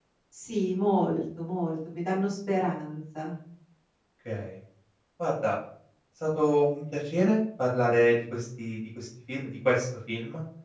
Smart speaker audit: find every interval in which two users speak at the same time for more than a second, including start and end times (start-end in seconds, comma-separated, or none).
none